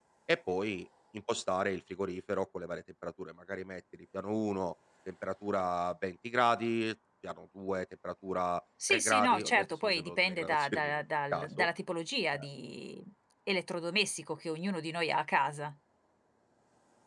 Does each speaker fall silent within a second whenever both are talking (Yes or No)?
No